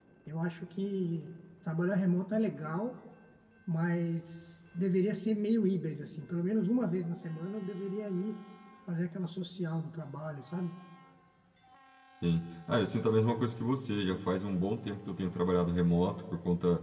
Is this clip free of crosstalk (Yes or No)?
Yes